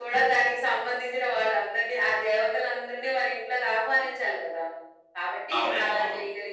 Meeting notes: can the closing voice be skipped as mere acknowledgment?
Yes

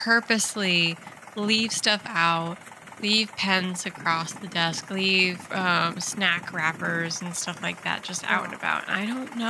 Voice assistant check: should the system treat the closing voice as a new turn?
No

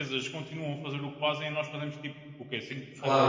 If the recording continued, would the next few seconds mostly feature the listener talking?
Yes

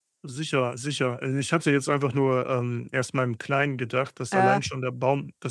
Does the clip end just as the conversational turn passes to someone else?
No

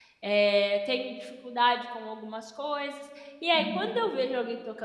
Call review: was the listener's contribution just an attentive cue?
Yes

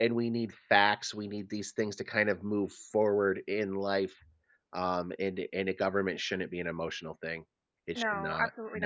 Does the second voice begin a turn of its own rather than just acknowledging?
Yes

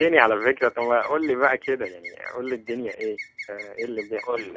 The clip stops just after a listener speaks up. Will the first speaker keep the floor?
No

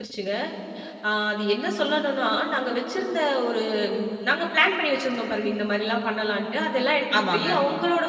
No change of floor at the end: Yes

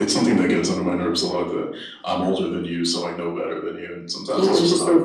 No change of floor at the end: No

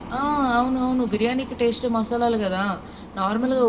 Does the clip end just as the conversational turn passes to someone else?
No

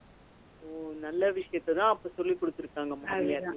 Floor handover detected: Yes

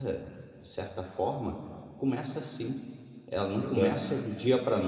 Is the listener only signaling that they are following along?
Yes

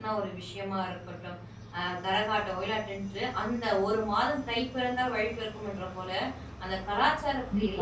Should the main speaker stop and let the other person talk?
No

